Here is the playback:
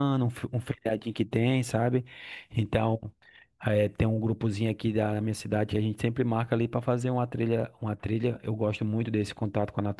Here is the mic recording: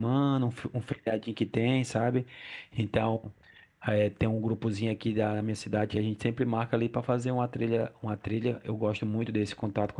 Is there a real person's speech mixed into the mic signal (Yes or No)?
No